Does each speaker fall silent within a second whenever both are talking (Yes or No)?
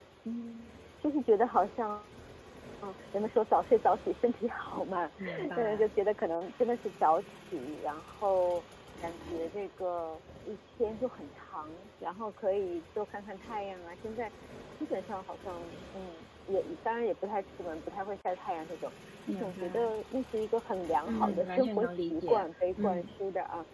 No